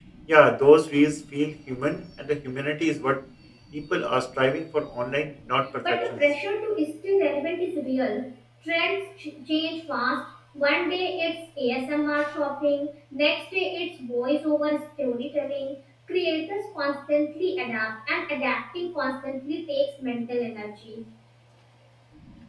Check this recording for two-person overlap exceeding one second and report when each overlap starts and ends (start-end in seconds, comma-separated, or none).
none